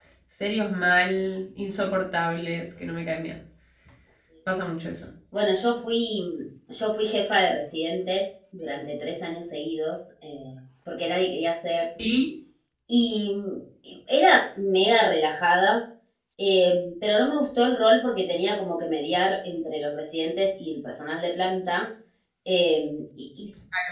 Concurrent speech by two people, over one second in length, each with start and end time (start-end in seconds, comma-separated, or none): none